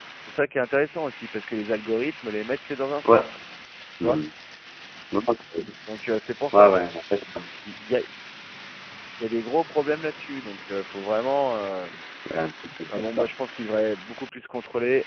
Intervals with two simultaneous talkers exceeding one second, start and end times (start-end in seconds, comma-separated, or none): none